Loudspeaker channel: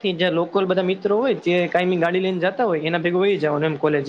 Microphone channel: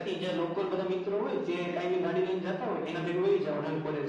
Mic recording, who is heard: echo only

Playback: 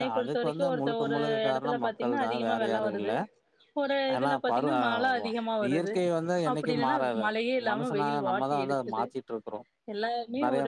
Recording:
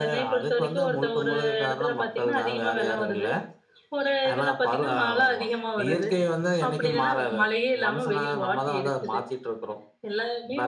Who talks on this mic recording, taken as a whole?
echo only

